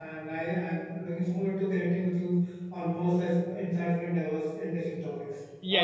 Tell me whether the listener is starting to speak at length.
Yes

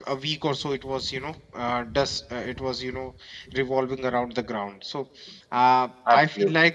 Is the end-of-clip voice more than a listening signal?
No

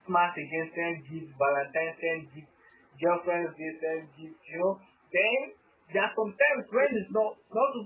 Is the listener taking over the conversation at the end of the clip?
No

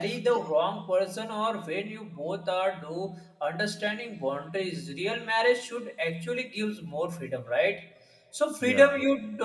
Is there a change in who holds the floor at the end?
No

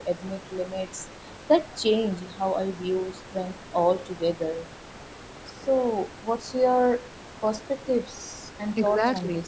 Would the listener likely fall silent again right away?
No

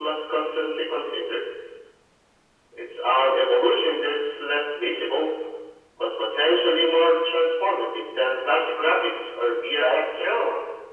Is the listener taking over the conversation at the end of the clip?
Yes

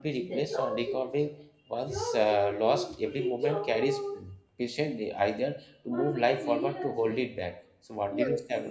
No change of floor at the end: No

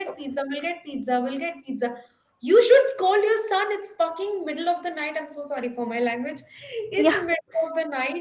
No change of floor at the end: Yes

